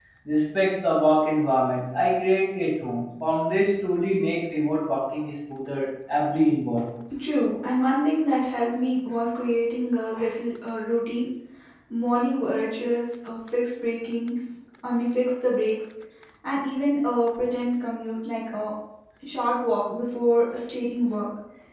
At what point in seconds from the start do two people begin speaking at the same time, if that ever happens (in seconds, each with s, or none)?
none